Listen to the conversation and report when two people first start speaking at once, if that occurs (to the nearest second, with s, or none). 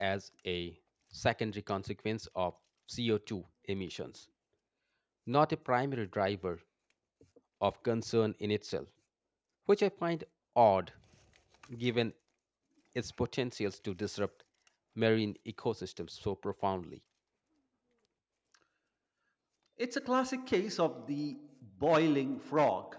none